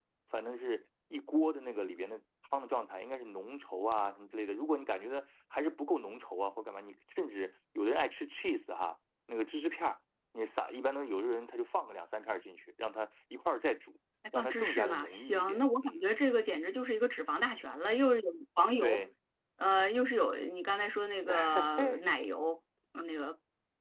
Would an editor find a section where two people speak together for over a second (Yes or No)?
Yes